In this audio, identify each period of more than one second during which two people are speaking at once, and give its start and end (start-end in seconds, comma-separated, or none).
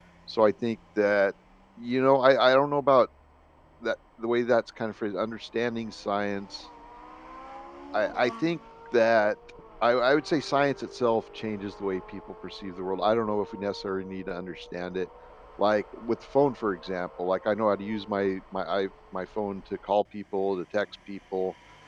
none